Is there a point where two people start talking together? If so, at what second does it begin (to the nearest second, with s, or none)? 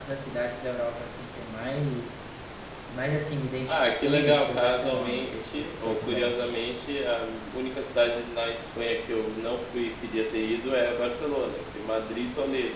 4 s